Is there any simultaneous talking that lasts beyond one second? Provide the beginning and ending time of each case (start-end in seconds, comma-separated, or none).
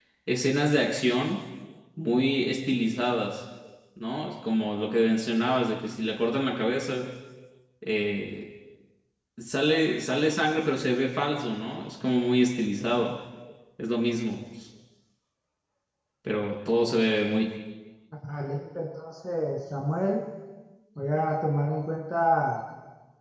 none